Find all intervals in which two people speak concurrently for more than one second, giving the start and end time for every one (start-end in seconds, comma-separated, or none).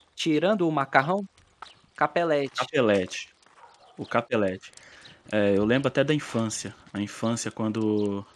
none